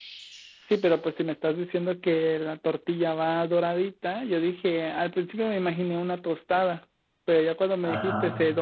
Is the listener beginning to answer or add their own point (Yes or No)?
No